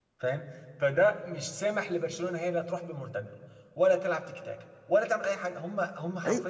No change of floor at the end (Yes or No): No